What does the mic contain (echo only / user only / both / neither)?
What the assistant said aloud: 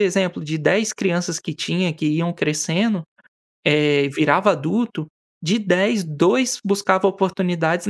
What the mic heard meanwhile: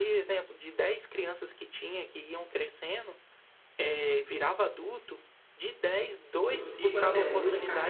both